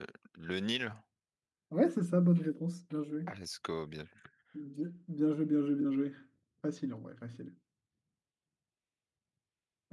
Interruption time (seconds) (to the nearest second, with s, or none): none